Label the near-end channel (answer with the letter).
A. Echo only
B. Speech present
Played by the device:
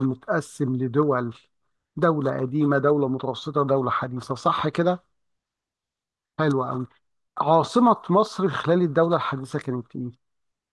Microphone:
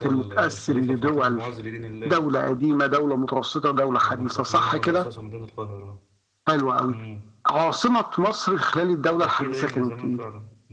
B